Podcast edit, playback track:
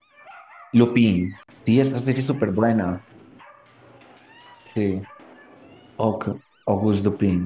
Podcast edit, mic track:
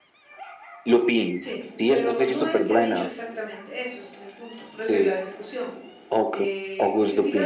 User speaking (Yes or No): Yes